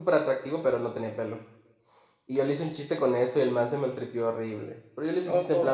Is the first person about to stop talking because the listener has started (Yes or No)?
No